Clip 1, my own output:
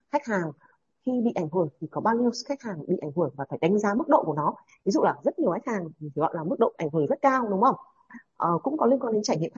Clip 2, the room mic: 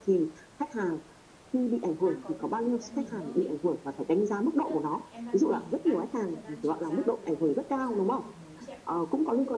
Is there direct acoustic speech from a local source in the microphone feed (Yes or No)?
Yes